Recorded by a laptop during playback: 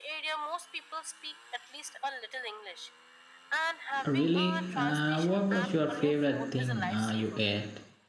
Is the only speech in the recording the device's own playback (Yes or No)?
No